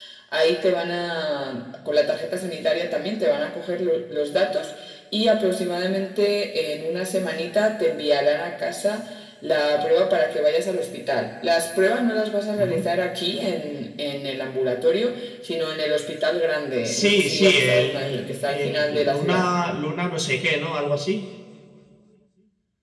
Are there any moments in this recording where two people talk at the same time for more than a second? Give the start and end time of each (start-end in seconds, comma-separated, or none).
16.8-19.5